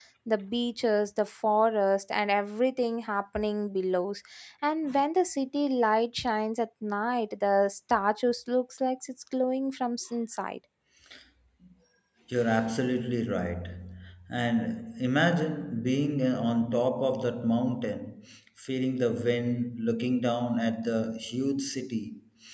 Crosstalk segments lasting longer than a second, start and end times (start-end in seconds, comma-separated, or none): none